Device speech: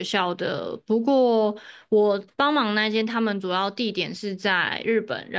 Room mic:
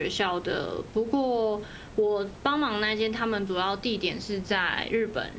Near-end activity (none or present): none